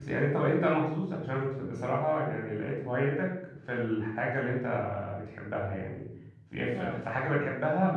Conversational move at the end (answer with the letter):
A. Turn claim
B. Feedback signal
B